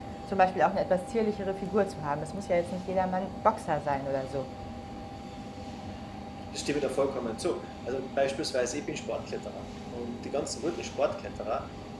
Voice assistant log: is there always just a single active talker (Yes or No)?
Yes